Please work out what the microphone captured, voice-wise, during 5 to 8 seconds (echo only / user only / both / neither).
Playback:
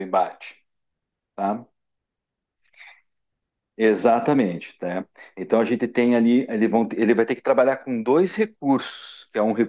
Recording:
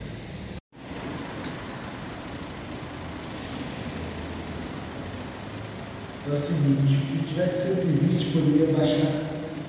user only